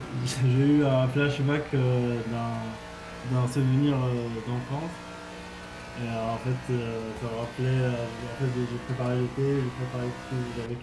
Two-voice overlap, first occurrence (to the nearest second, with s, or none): none